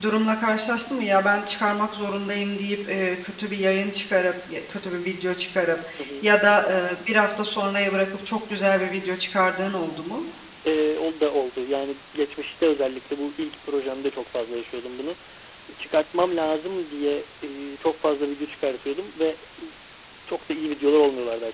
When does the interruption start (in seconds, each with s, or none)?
none